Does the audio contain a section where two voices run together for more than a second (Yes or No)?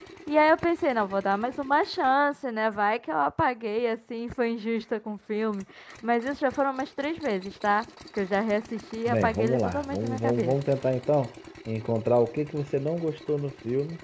Yes